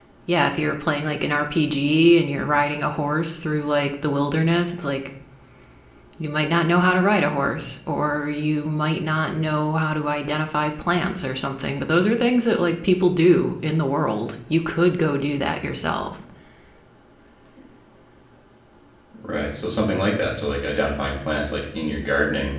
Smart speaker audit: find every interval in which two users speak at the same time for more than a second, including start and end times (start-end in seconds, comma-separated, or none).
none